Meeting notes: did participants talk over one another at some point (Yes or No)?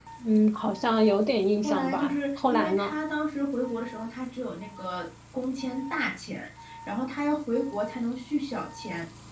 Yes